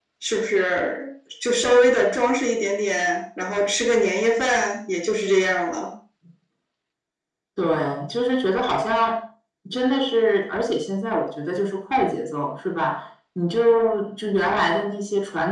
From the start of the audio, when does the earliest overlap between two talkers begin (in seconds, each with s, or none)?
none